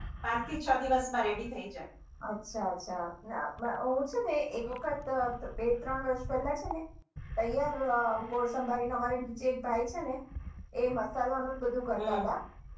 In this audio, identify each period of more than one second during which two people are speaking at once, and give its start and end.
none

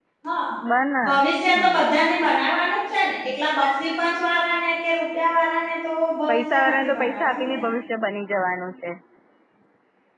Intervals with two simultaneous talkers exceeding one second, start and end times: 6.3-7.6

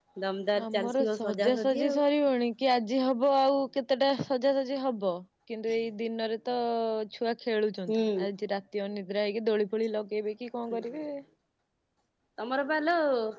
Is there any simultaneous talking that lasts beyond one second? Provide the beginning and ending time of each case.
0.7-2.0

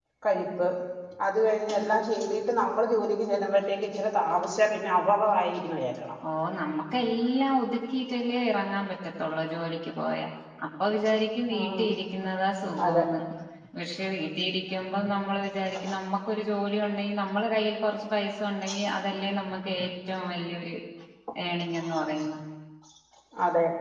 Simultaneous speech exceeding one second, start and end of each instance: none

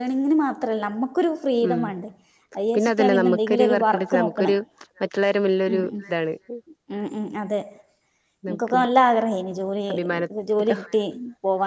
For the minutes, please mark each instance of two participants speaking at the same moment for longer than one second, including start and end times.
2.7-4.5

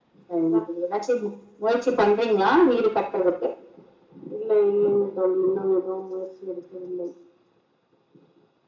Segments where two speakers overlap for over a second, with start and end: none

